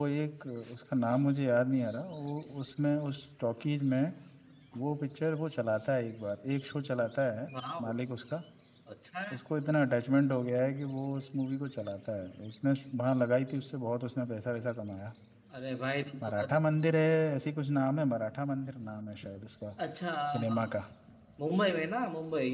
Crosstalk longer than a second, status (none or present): none